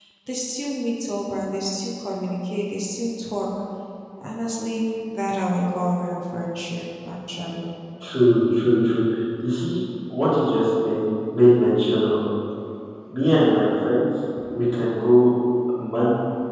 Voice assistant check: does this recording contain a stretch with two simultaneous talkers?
No

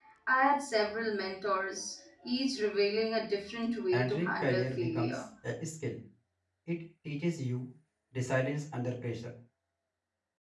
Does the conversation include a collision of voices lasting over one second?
Yes, from 3.9 s

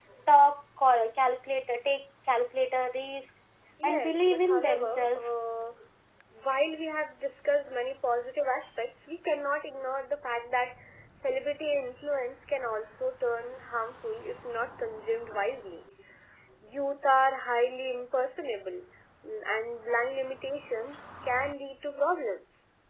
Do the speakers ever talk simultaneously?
Yes, from 3.8 s

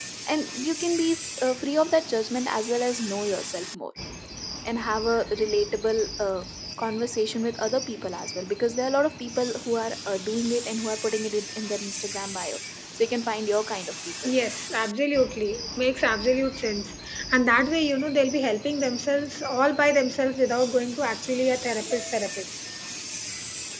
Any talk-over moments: No

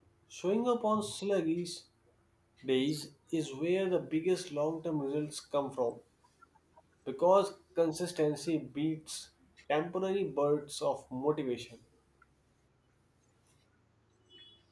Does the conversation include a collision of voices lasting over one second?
No

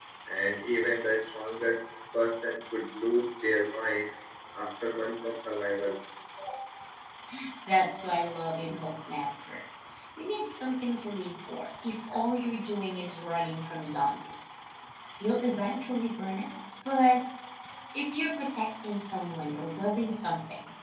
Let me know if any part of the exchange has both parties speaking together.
No

